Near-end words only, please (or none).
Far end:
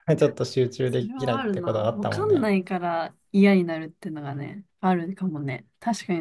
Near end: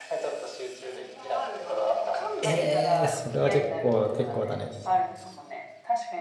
ええそれは結構、結構だね。